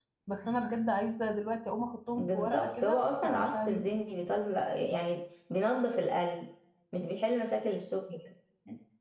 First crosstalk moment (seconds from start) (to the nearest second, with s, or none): 2 s